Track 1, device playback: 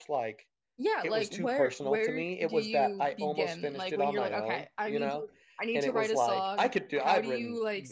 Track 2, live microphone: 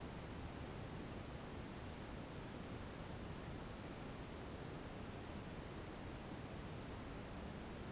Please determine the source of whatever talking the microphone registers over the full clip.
neither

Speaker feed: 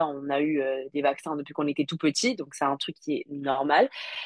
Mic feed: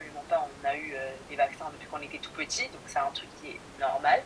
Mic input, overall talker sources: echo only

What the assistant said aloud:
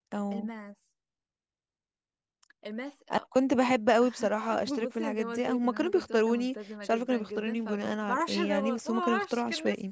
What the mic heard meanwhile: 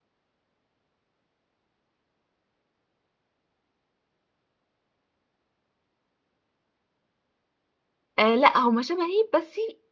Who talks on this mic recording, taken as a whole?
user only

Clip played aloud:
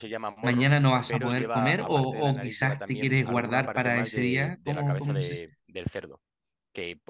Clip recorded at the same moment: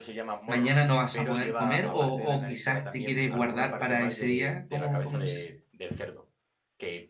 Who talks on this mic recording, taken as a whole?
echo only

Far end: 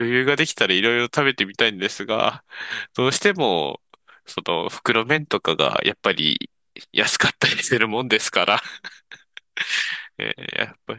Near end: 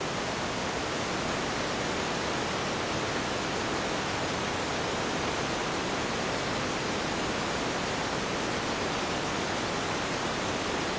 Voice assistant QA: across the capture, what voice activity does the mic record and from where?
neither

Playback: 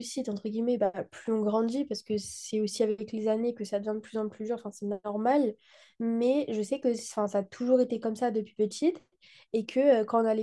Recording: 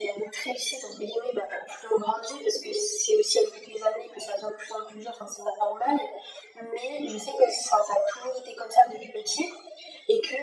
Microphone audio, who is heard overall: echo only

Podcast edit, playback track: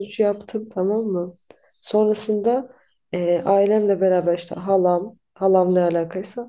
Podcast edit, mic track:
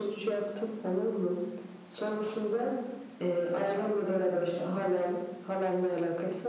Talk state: both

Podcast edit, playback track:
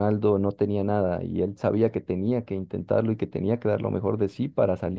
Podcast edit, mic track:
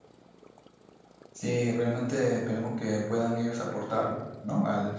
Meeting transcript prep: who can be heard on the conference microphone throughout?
user only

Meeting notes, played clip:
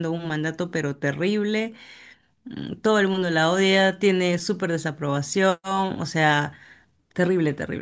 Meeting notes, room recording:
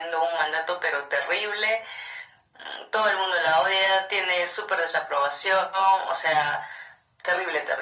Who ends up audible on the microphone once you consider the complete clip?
echo only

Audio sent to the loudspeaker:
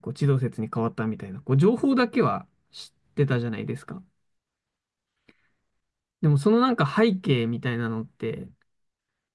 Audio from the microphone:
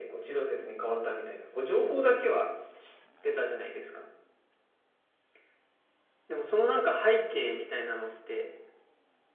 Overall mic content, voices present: echo only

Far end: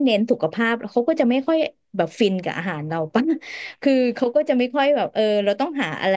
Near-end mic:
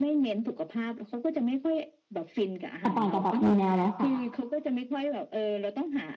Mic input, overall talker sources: both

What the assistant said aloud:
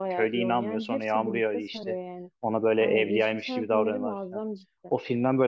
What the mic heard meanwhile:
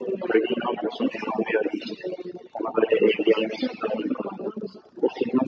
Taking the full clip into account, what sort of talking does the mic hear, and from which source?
echo only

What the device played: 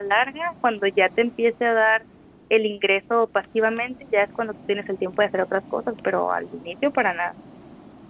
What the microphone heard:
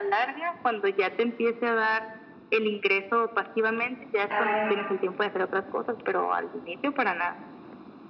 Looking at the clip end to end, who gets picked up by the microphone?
both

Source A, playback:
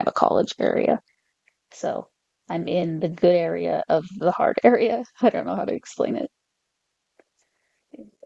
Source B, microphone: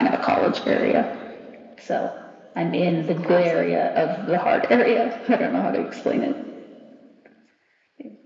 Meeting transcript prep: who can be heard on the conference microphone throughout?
both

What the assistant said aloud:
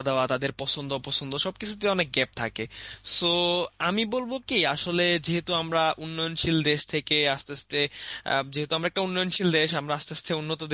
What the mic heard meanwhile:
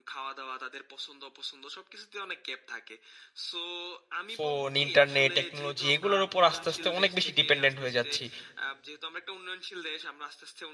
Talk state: both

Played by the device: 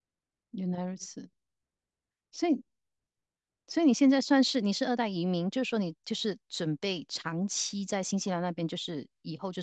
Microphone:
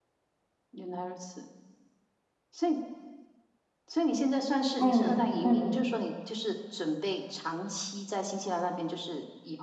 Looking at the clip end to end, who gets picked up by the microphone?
both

